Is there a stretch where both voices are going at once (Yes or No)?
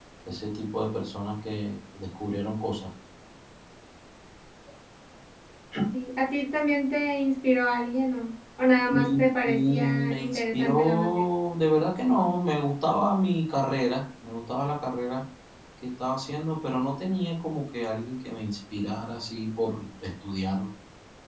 Yes